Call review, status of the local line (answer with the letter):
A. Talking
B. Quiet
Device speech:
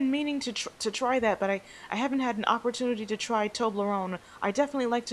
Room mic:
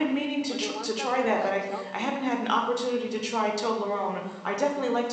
A